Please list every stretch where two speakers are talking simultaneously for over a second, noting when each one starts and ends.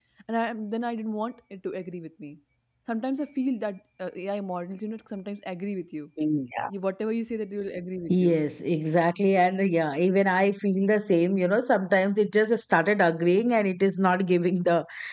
none

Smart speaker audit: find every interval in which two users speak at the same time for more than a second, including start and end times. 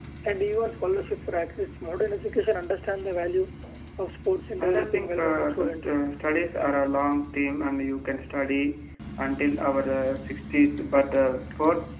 4.6-6.0

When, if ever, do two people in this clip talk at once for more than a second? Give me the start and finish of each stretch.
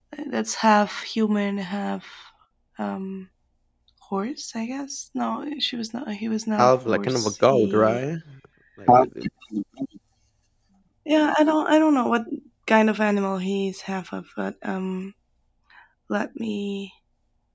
6.6-8.0

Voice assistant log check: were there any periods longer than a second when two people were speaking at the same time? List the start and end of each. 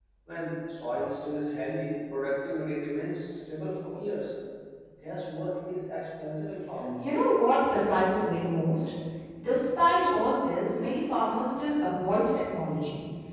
none

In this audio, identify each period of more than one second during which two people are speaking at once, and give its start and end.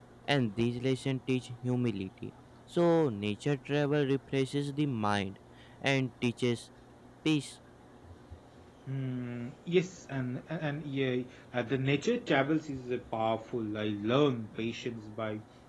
none

